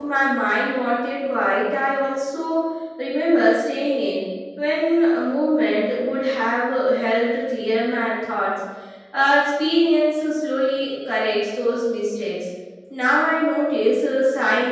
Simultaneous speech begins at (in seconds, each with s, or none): none